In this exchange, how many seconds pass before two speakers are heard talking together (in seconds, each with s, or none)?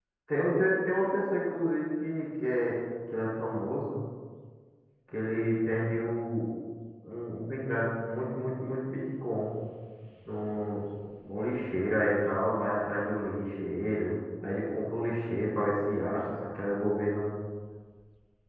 none